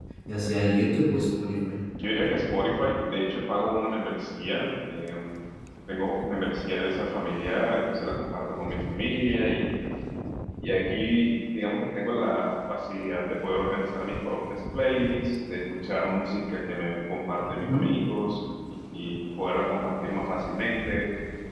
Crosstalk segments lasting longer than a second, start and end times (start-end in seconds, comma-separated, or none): none